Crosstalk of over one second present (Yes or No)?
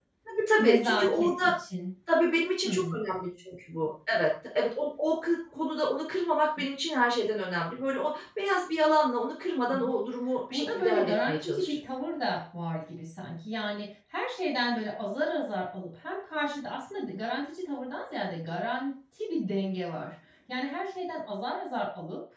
Yes